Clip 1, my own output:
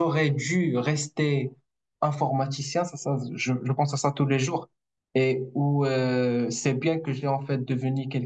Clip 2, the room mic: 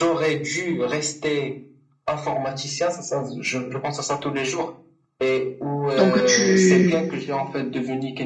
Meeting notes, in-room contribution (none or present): present